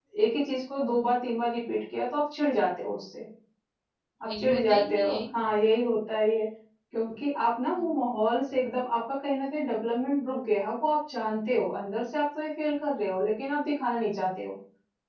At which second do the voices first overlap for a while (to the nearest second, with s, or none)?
4 s